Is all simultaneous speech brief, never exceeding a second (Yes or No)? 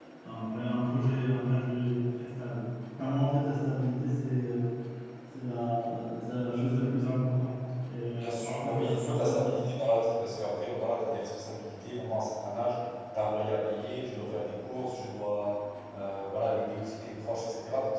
No